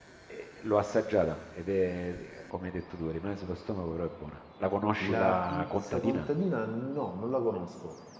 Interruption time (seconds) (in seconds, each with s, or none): 5.0 s